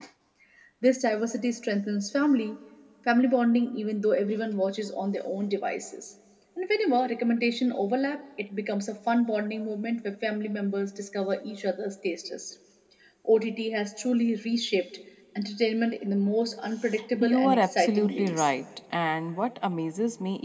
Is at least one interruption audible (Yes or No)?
Yes